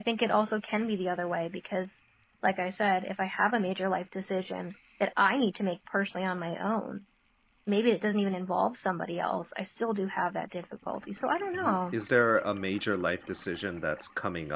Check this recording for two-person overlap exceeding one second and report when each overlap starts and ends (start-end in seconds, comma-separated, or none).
none